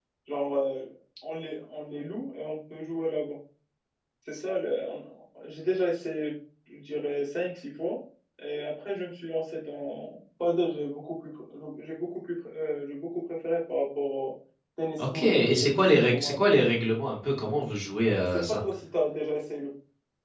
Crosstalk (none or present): present